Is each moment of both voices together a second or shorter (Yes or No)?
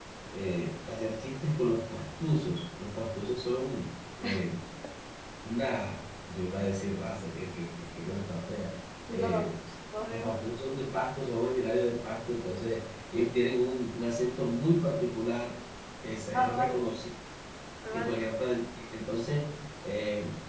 Yes